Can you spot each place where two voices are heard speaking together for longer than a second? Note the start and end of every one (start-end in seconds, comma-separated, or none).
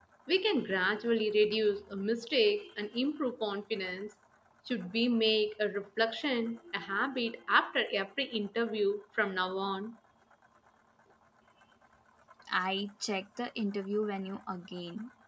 none